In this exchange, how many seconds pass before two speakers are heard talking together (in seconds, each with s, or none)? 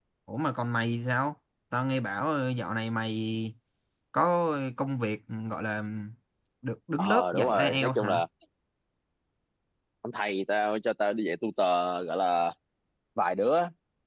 7.0 s